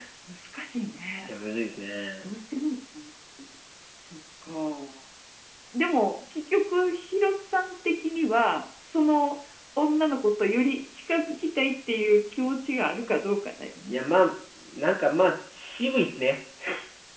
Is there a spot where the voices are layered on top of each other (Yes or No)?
No